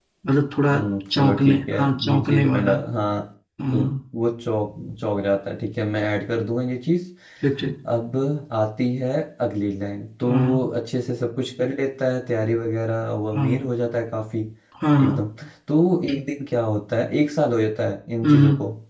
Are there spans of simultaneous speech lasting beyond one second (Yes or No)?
Yes